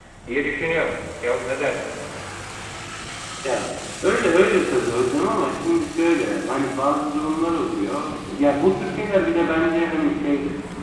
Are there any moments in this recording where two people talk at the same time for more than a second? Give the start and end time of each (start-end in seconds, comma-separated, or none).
none